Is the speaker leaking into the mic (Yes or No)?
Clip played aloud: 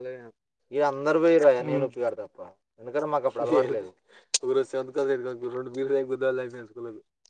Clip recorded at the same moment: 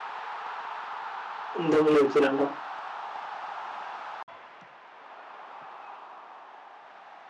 No